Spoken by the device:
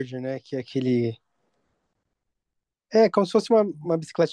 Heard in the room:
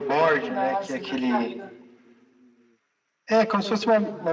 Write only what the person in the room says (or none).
Nossa, é verdade.